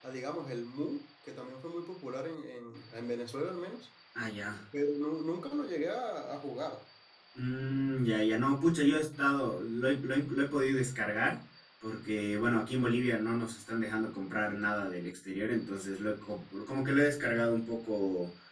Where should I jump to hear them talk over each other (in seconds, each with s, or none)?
none